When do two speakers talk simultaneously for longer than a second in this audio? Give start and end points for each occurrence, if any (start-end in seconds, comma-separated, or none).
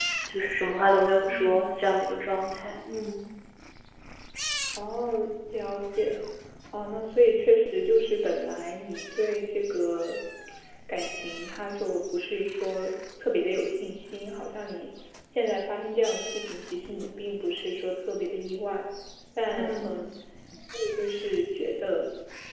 none